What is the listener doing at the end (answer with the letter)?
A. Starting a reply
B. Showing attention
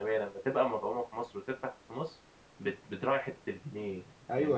A